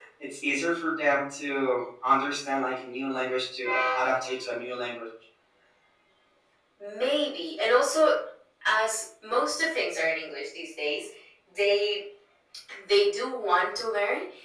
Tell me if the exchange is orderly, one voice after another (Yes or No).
Yes